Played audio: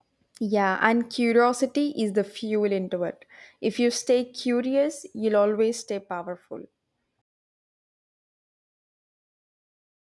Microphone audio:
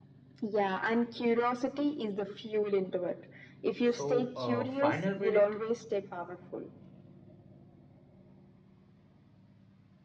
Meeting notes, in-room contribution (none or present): present